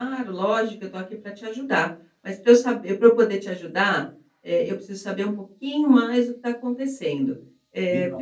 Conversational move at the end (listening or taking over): listening